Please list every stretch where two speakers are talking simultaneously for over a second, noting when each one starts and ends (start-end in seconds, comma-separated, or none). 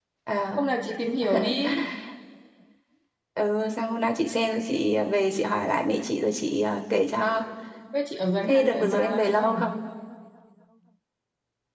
8.4-9.7